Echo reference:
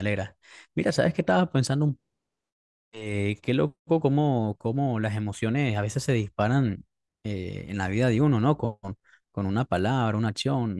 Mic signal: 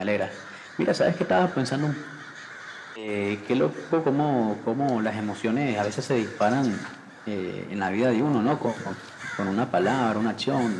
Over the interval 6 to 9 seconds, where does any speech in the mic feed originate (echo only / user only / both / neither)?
echo only